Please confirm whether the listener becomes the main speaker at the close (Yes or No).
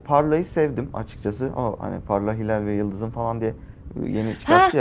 Yes